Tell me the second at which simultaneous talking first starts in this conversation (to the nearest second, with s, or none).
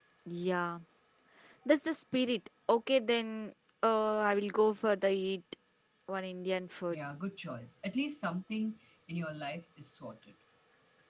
none